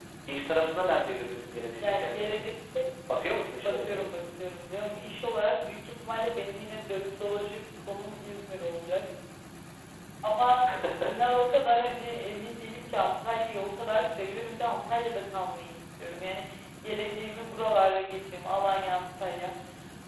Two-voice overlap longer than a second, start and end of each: none

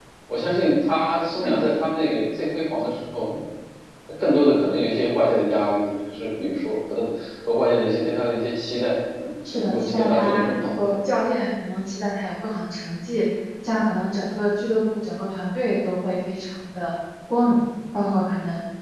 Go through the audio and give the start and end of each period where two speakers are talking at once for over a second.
9.5-10.8

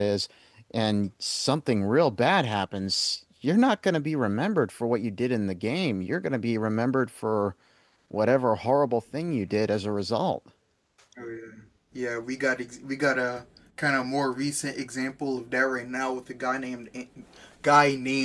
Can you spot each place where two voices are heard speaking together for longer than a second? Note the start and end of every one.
none

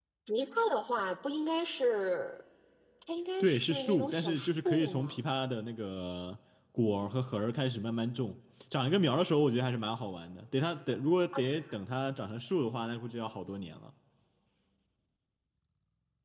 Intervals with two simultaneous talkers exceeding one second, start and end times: 3.4-5.2

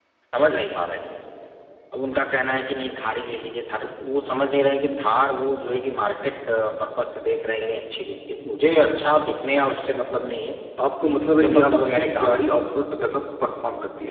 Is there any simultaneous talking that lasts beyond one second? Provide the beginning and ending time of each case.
11.3-12.6

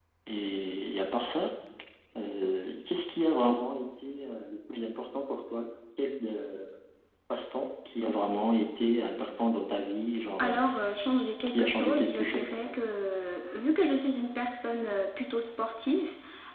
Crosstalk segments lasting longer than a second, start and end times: 11.5-12.7

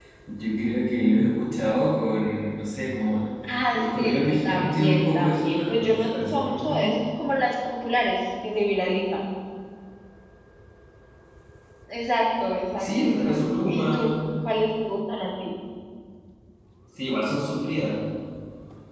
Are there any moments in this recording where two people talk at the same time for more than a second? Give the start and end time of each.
3.7-7.0, 12.8-14.1

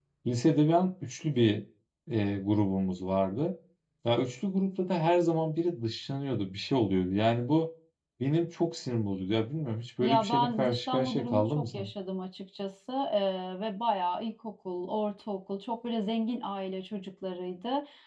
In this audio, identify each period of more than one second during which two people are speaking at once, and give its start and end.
10.0-11.9

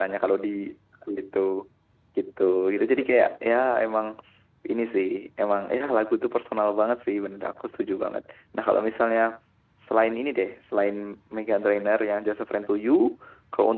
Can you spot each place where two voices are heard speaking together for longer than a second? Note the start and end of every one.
none

